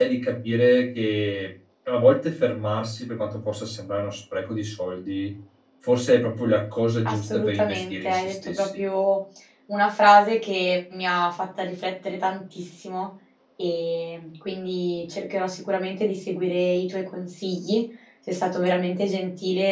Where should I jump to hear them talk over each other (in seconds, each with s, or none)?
7.0 s